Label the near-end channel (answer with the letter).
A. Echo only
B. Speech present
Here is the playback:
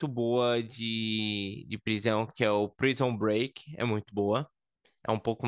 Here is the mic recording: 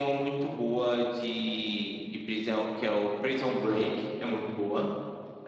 B